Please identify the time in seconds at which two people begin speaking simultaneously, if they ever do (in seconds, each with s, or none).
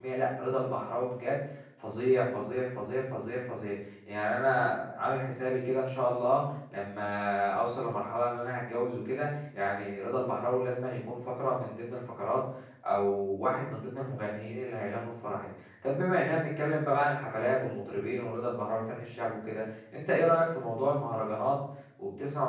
none